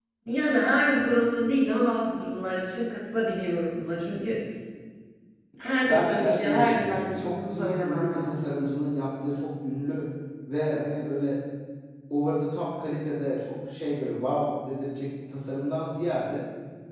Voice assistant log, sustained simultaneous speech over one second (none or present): present